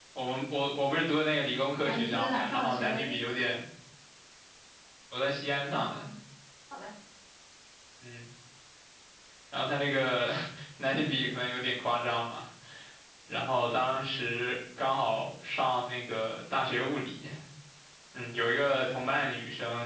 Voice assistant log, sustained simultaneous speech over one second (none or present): present